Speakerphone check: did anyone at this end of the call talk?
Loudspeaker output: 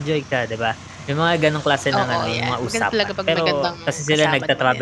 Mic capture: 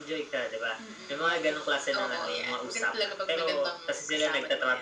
Yes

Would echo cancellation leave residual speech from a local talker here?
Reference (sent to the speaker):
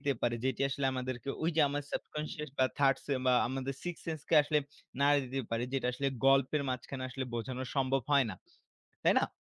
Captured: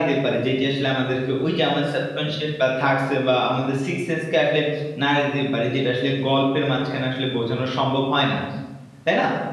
No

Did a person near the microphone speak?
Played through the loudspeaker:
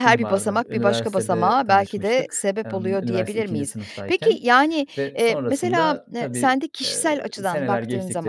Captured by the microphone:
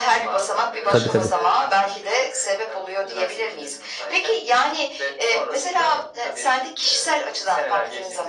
Yes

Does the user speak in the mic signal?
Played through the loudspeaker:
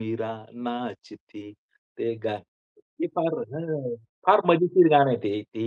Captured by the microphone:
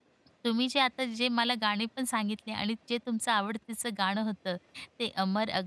Yes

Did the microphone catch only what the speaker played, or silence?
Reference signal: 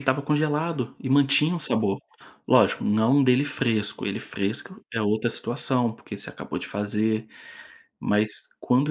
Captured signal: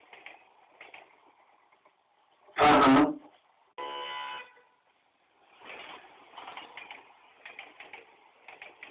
No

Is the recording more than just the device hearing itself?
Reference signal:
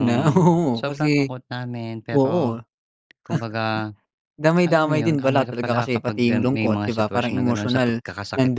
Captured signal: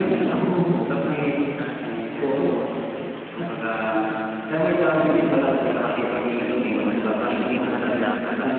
Yes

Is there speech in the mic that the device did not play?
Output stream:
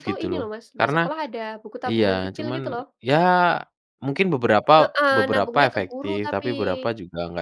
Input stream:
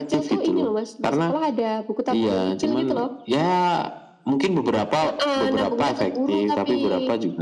No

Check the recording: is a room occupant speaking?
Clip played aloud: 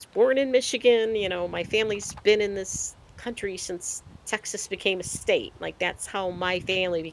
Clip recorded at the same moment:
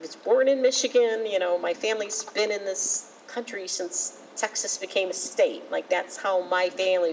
No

